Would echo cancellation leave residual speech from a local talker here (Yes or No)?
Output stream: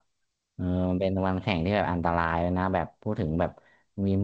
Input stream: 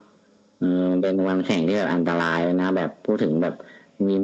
No